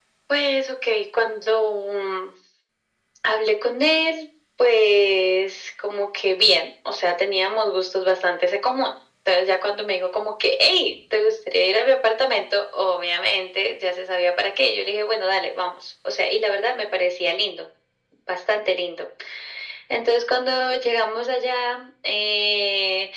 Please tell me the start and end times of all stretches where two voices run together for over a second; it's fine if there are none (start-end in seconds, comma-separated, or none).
none